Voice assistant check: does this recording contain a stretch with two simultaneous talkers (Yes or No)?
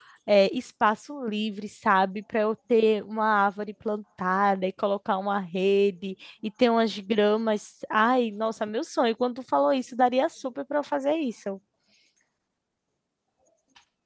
No